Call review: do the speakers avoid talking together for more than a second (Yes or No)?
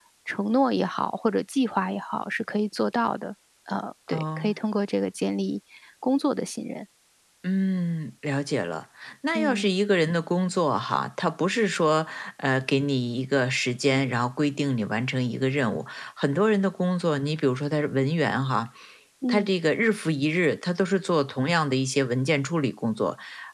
Yes